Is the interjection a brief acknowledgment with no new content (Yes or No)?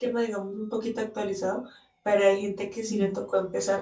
Yes